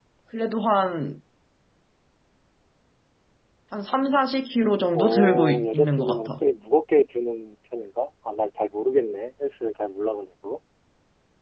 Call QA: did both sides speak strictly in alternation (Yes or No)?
No